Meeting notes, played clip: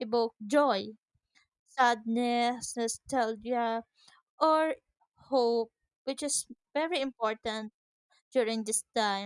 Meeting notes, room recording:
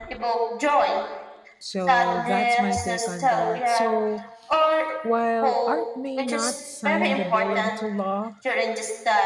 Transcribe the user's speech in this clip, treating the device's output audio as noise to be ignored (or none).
so that's my take on that so while art may not sign the bill into law